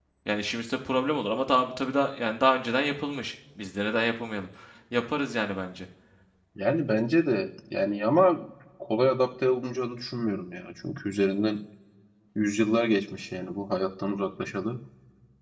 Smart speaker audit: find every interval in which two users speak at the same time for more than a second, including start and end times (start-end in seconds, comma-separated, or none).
none